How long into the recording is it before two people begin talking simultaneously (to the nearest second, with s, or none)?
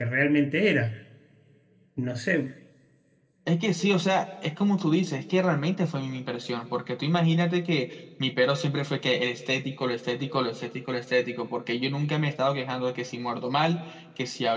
none